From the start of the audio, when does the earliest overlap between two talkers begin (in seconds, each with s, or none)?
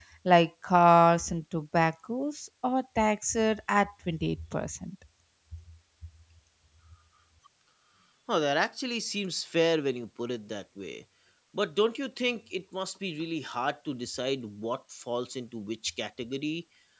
none